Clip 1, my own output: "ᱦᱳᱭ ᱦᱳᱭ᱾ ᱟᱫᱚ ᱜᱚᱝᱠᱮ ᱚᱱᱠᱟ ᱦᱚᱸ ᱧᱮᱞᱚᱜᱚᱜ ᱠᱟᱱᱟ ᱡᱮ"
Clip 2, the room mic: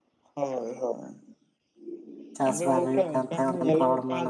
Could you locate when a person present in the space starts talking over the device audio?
2 s

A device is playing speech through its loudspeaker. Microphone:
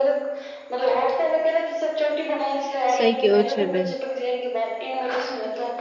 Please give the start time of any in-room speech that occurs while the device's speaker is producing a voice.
3 s

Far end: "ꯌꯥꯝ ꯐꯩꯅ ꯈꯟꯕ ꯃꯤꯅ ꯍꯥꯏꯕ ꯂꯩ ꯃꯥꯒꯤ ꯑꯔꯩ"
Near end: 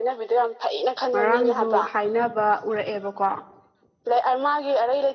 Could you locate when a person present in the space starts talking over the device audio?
1 s

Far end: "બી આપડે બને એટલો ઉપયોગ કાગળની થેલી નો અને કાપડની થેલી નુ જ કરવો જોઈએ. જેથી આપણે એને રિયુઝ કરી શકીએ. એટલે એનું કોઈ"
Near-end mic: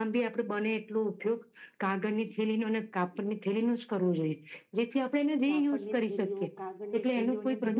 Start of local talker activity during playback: 5 s

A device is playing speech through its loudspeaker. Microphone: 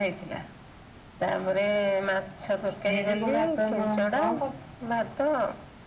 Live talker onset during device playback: 3 s

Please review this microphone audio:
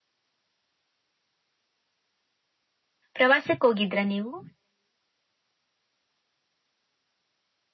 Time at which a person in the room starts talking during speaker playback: 3 s

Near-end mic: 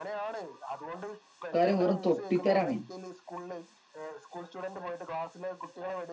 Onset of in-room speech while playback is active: 2 s

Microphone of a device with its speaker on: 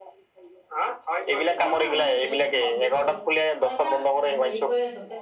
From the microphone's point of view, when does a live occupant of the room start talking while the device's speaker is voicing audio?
2 s

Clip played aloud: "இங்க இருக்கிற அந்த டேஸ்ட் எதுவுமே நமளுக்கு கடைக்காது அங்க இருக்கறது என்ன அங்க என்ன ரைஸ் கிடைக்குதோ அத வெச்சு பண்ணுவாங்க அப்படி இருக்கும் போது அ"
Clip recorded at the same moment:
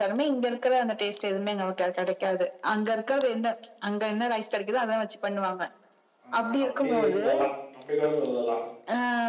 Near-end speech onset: 6 s

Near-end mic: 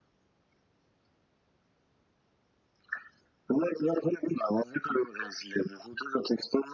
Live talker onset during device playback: none

